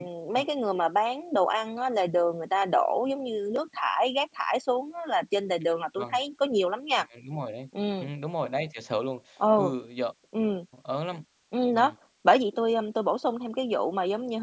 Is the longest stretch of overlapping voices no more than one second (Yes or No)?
Yes